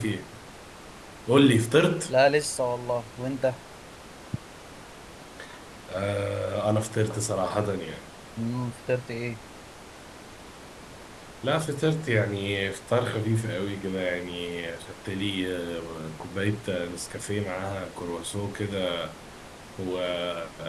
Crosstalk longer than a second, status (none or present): none